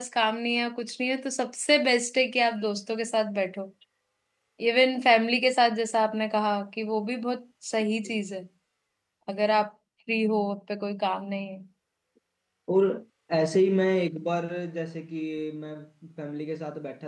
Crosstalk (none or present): none